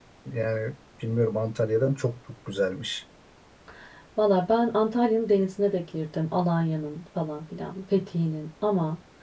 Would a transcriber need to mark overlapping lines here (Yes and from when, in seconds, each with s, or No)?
No